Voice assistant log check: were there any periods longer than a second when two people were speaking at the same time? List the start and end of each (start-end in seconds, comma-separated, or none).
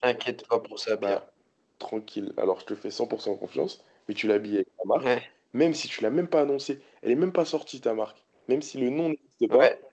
none